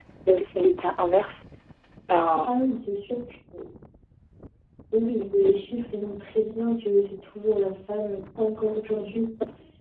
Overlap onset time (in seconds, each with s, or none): none